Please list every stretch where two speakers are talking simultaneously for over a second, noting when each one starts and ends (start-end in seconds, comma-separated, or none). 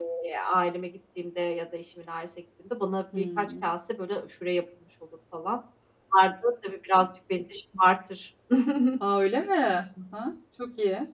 none